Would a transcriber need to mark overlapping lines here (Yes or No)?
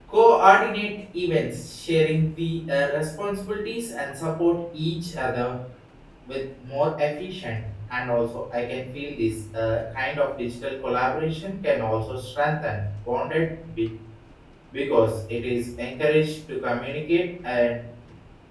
No